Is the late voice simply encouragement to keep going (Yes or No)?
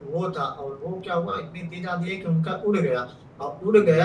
Yes